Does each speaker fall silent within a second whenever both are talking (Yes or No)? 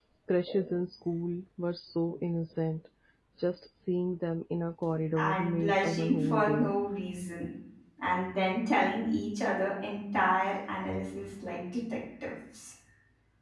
No